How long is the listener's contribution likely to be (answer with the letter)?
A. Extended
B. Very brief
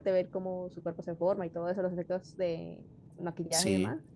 B